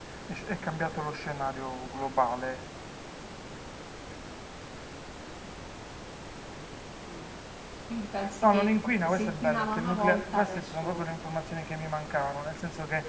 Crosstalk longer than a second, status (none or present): present